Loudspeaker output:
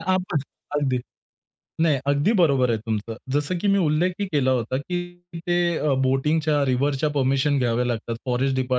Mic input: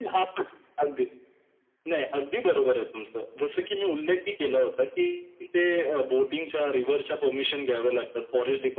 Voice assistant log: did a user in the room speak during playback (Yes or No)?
No